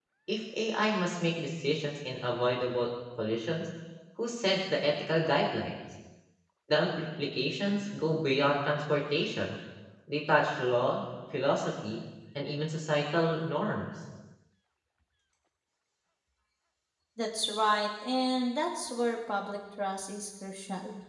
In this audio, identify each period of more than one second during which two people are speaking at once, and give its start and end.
none

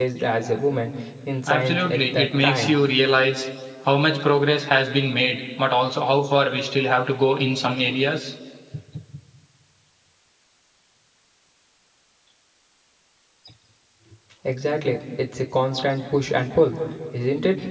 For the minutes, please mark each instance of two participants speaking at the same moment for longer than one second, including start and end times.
1.5-2.8

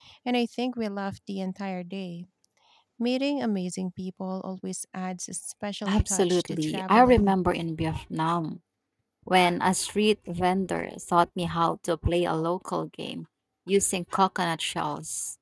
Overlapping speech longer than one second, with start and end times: 5.8-7.3

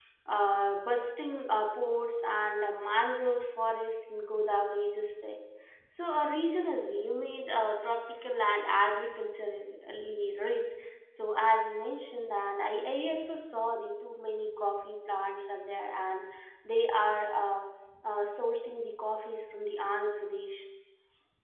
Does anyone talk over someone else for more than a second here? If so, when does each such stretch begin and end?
none

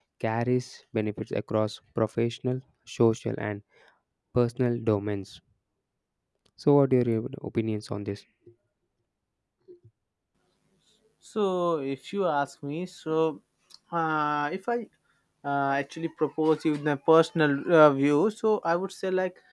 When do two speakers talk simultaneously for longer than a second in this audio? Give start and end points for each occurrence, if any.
none

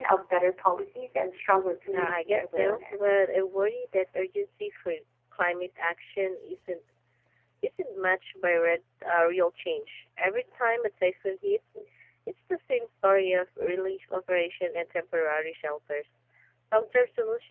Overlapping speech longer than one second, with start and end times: 1.9-3.1

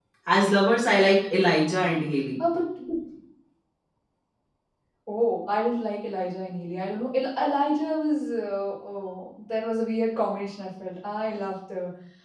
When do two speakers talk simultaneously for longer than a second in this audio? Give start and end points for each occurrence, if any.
none

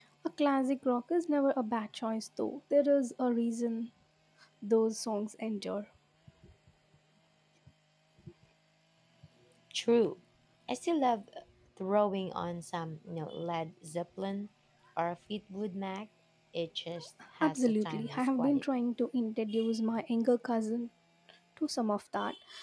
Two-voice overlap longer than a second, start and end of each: 17.4-18.6

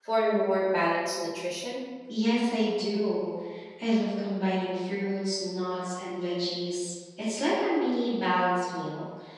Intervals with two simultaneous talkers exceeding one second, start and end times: none

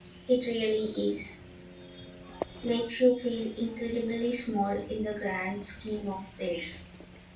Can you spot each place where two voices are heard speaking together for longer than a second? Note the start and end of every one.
none

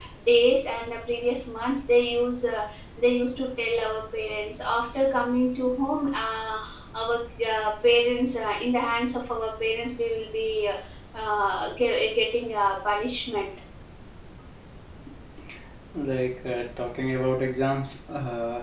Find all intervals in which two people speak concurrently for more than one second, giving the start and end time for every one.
none

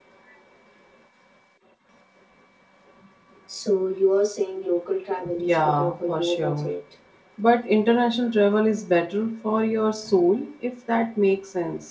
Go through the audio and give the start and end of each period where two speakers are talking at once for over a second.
5.4-6.7

